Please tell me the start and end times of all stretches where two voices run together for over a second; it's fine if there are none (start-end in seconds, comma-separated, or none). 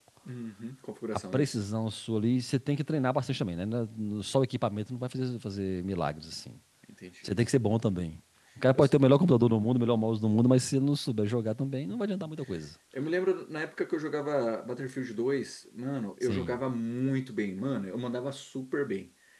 none